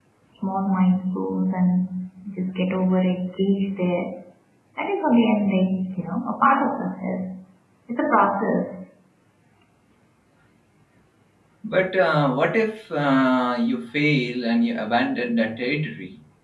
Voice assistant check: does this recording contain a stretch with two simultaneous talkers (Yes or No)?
No